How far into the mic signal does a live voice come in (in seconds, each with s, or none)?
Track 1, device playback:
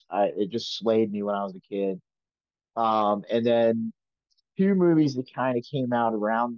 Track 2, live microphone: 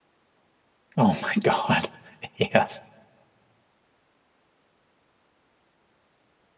1.0 s